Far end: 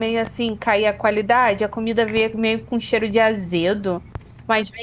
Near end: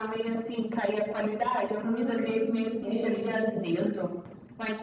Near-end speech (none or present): present